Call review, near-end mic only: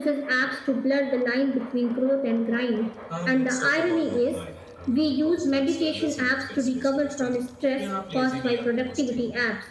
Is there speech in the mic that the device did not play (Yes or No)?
Yes